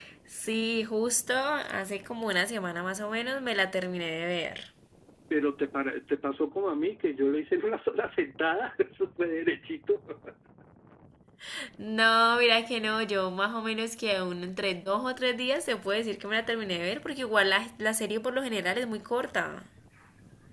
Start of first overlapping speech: none

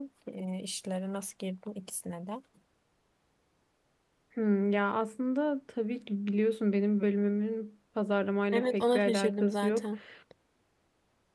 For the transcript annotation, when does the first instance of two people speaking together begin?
8.5 s

